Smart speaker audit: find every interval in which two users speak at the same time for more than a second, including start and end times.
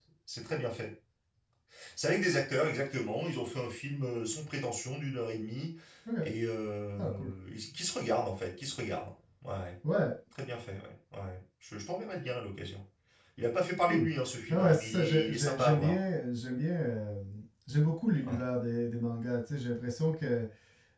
14.5-16.0

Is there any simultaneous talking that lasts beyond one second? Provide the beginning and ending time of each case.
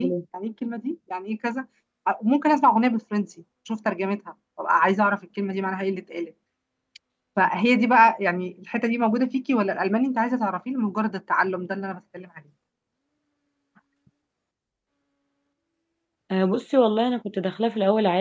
none

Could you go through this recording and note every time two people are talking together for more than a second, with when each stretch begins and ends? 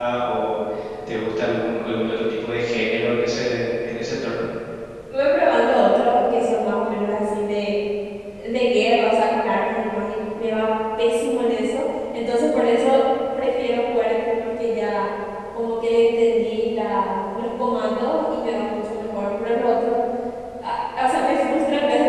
none

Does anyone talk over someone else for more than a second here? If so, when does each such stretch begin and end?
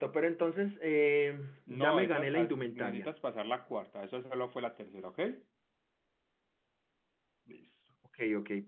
1.8-3.1

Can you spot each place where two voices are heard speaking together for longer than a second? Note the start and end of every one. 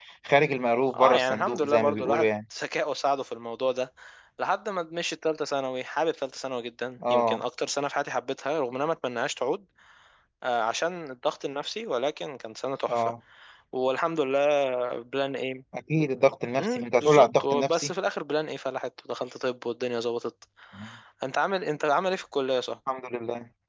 0.9-2.3, 16.6-17.9

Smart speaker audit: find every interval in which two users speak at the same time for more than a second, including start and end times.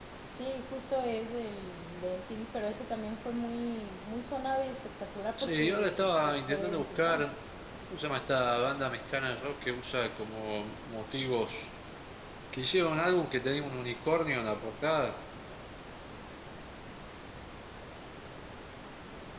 5.4-7.3

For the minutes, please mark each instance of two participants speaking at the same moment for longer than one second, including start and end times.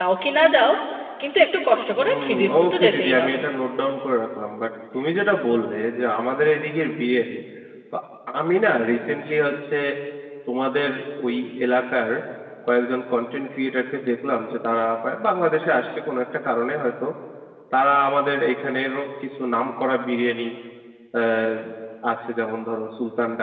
1.9-3.4

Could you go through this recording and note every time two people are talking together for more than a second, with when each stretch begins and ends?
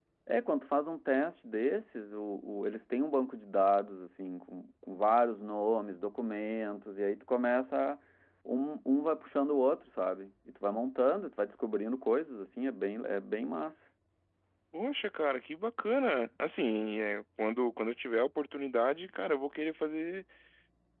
none

